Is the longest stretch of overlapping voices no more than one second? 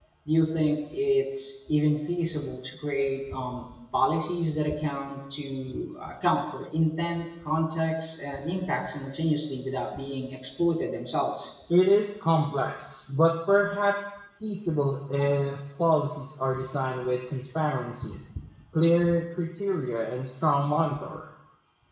Yes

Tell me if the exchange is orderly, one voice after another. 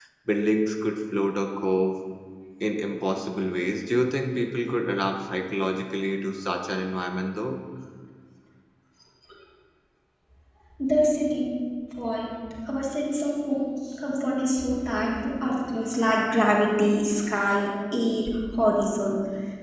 Yes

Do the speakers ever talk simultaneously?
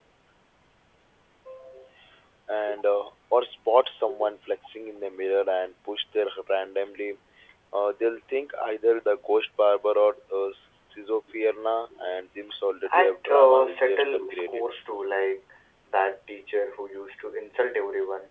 Yes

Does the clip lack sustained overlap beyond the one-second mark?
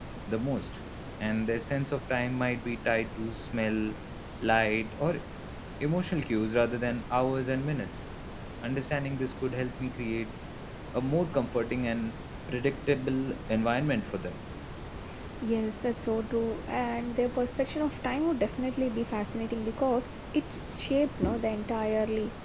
Yes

